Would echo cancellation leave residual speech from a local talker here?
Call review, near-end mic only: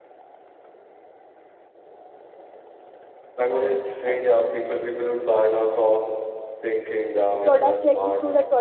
Yes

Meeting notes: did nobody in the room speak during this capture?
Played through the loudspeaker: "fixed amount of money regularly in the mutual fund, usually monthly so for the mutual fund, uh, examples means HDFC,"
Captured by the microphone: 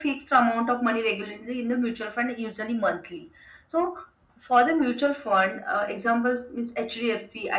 Yes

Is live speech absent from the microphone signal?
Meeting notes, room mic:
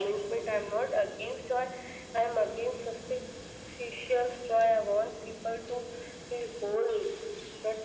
Yes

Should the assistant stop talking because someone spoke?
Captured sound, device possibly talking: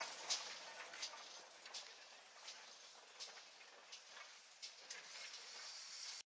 No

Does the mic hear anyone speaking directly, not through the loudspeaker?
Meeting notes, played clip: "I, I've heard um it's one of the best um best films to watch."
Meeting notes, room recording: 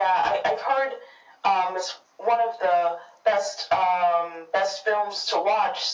No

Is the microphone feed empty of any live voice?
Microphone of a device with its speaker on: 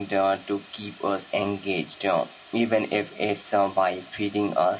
Yes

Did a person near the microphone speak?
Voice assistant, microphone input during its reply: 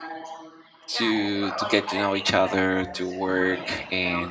Yes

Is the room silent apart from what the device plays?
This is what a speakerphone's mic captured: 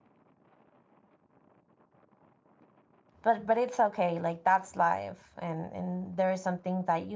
No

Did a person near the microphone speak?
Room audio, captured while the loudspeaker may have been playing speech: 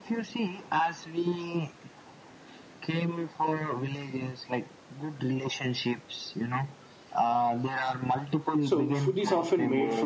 Yes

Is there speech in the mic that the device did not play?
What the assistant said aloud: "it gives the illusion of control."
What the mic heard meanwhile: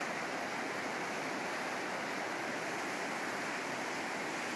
No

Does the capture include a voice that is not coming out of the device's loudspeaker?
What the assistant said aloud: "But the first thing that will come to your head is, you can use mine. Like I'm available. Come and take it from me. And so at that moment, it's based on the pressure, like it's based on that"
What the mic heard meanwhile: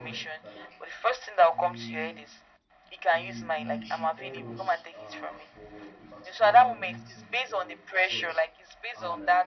Yes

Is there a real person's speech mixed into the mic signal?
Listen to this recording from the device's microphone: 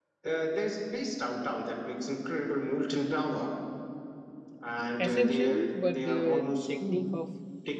Yes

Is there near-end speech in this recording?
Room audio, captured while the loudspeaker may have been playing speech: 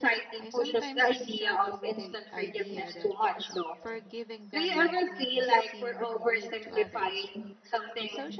Yes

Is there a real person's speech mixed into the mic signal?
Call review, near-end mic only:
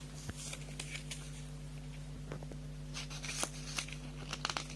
No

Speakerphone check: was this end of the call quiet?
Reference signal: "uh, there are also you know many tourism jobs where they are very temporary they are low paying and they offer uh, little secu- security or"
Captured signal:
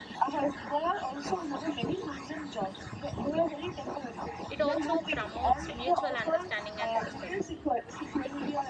No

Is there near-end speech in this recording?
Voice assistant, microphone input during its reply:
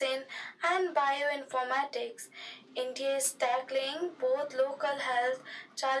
No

